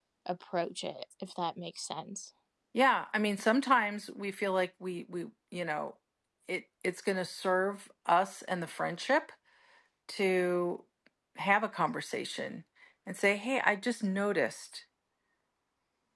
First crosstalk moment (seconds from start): none

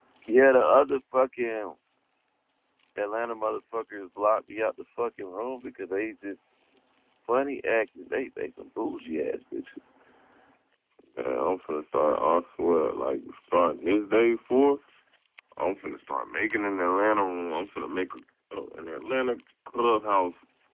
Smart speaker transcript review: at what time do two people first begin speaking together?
none

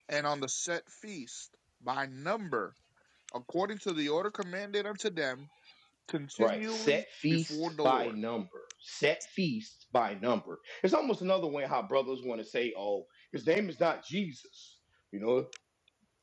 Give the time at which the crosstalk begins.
6 s

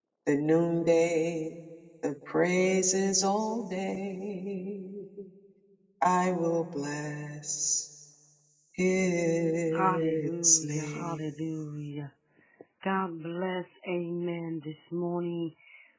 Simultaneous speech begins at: 10 s

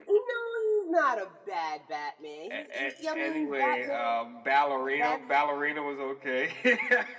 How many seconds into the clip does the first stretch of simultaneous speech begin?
3 s

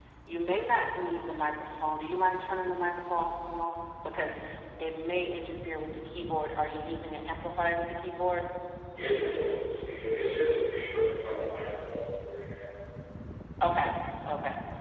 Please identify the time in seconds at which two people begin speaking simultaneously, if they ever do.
none

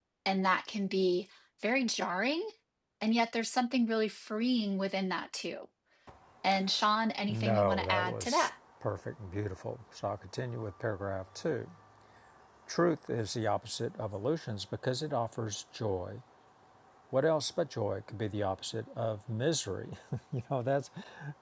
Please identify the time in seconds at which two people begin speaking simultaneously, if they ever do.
7 s

